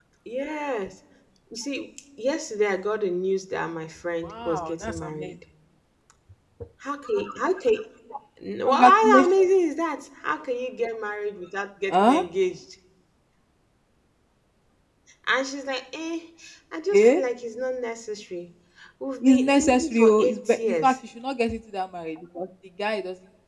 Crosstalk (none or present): present